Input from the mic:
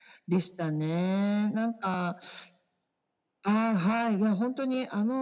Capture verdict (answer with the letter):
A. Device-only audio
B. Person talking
A